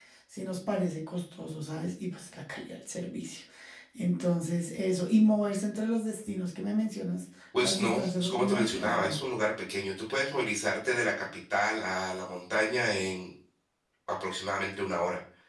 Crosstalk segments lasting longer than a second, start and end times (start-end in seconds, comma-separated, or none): 7.6-9.2